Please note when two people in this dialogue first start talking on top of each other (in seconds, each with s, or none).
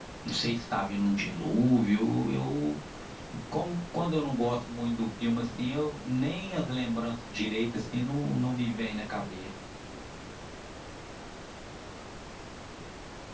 none